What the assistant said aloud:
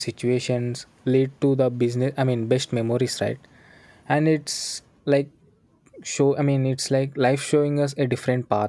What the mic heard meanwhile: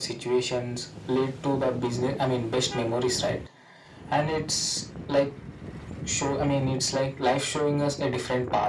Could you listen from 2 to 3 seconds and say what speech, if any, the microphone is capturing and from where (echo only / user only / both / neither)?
echo only